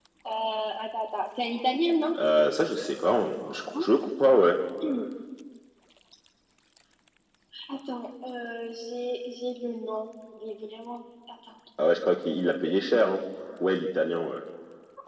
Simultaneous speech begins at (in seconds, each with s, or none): none